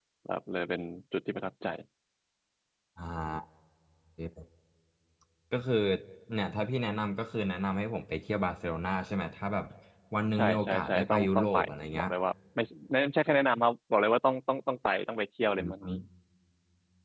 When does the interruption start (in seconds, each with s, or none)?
10.3 s